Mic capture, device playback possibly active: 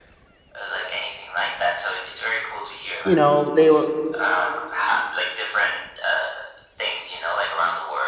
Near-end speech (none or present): present